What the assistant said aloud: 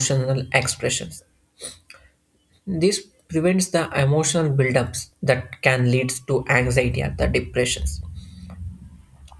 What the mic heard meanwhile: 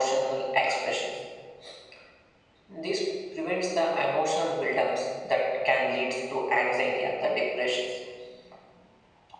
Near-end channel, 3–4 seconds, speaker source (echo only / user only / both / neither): echo only